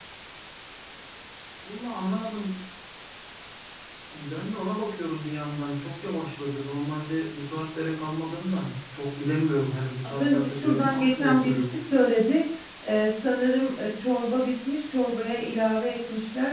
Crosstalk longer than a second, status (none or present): present